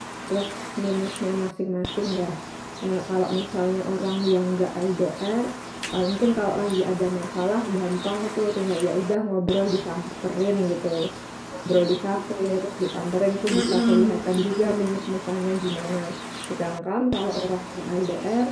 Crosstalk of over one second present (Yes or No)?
Yes